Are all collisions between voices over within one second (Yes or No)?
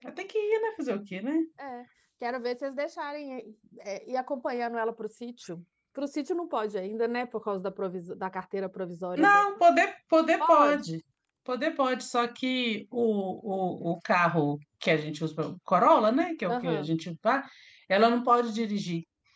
Yes